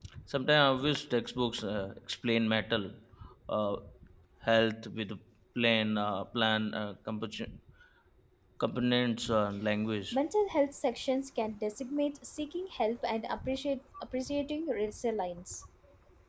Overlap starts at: none

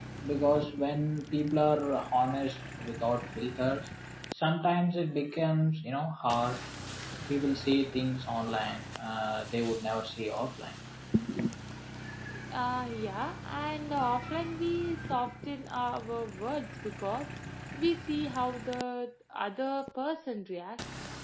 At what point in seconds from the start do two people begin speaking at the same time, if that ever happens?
none

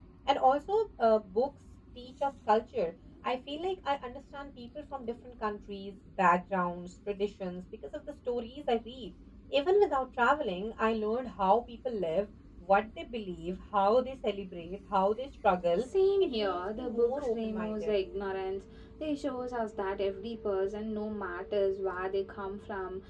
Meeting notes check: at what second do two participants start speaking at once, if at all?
16.4 s

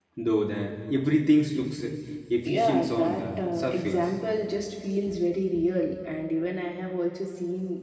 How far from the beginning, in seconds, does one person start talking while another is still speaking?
2.4 s

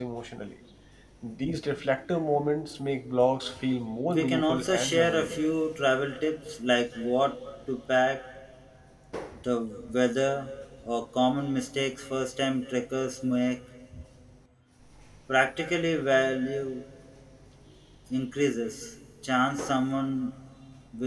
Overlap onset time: 4.1 s

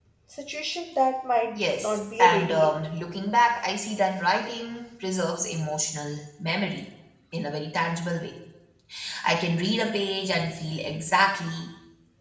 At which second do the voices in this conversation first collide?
1.6 s

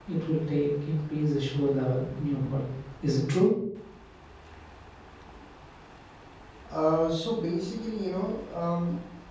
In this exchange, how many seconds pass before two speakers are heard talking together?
none

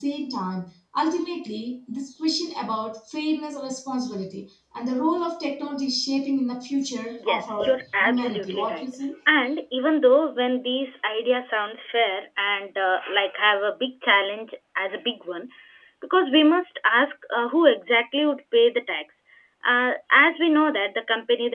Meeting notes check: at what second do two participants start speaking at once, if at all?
7.2 s

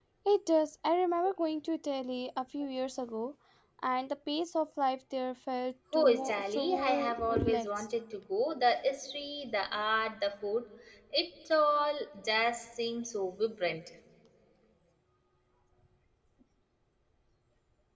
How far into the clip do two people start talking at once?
5.9 s

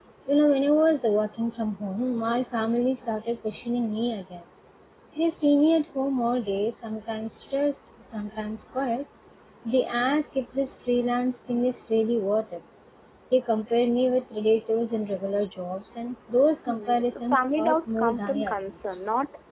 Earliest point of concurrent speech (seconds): 16.7 s

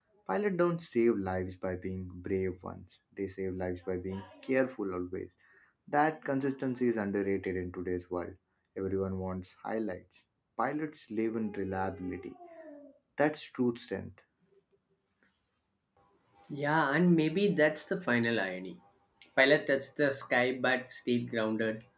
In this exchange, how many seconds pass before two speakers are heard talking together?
none

